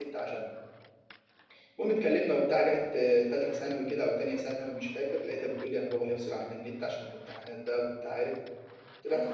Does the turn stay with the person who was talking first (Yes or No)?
No